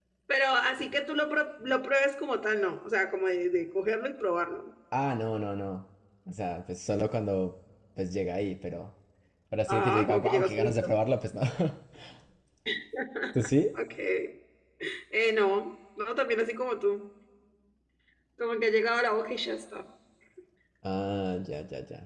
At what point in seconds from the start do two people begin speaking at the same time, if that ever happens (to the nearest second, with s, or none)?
10 s